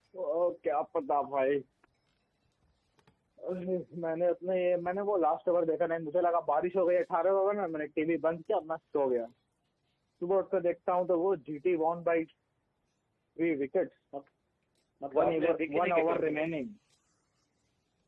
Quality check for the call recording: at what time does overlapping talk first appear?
15 s

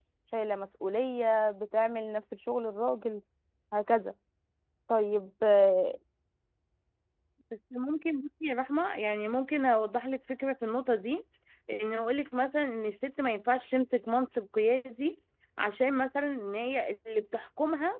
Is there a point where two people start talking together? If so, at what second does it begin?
none

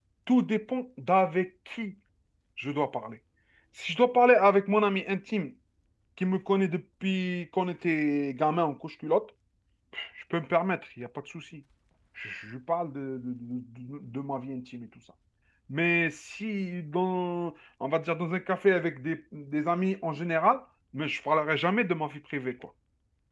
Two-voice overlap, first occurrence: none

